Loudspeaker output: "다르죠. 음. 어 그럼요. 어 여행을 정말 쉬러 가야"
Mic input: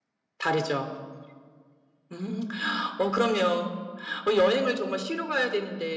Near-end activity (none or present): none